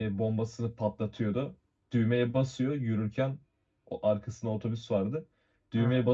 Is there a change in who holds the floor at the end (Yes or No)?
No